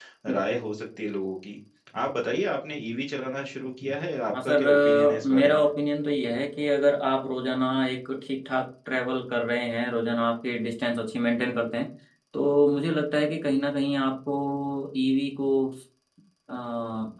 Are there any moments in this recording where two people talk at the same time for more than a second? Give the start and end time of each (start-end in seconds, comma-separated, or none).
4.4-5.6